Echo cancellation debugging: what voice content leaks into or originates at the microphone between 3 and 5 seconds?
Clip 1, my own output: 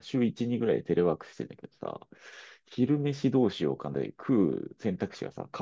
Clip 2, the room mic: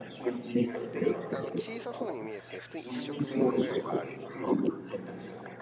both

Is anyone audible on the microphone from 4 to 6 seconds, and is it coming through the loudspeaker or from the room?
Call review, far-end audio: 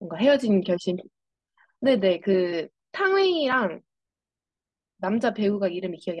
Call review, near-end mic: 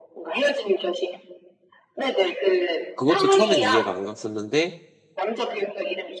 both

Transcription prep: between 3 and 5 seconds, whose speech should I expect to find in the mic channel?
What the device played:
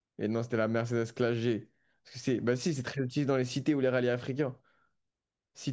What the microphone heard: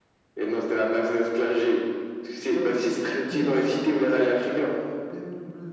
both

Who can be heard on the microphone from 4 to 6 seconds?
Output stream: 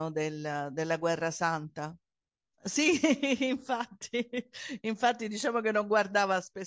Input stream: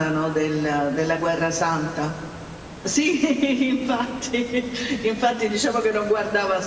echo only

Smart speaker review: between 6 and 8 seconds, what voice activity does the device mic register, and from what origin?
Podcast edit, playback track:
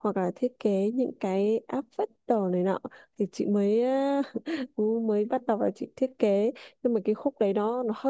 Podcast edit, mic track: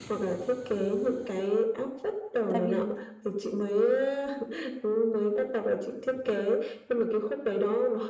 echo only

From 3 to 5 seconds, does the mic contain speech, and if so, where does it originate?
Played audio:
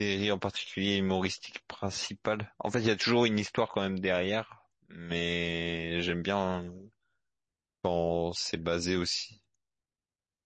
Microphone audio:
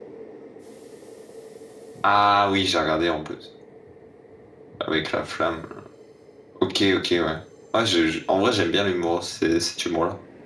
user only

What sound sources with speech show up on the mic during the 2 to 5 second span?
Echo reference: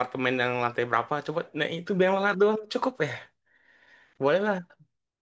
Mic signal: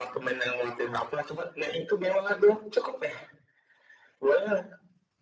echo only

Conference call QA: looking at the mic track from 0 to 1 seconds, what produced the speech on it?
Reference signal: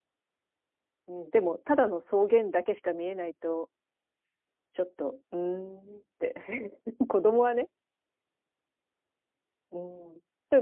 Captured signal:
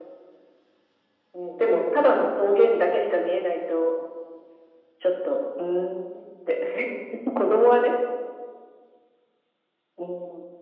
neither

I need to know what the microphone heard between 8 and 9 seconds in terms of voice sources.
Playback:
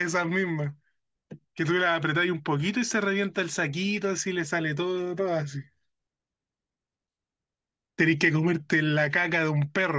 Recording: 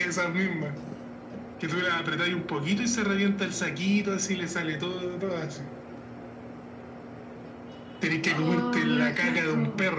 both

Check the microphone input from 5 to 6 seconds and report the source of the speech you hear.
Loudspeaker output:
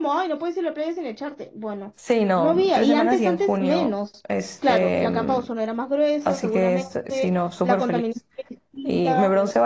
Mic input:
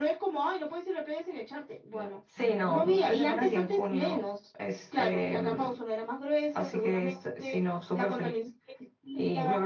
echo only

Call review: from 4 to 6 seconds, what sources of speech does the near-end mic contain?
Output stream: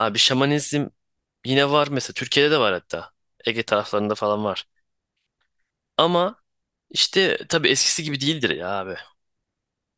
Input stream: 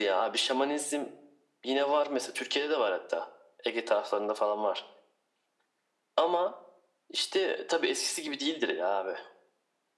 echo only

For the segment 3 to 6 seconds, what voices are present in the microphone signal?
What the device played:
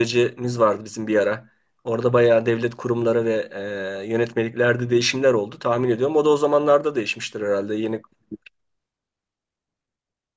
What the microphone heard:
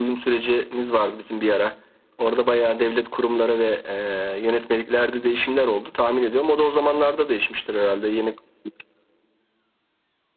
echo only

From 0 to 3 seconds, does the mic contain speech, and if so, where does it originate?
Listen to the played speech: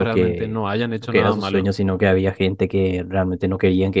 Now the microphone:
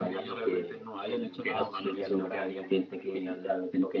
both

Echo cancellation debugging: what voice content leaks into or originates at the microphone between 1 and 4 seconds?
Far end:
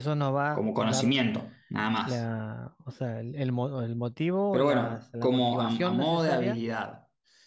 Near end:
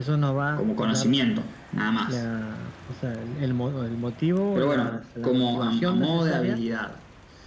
echo only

